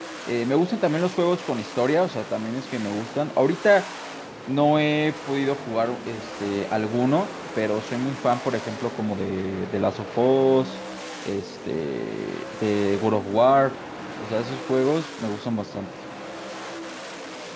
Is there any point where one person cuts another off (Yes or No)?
No